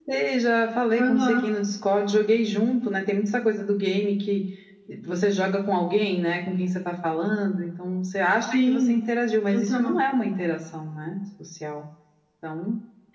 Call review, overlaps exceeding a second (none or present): none